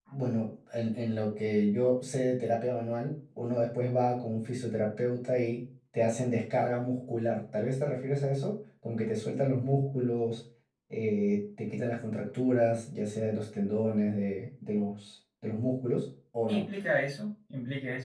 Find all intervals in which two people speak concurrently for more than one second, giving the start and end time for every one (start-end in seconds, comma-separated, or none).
none